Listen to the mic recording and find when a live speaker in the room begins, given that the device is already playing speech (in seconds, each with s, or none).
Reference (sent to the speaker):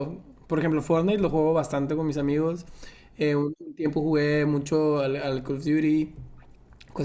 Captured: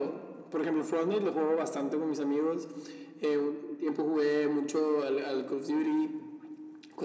none